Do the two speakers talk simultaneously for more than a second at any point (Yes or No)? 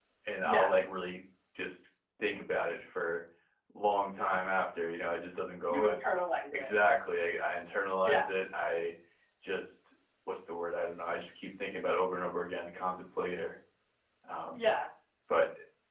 No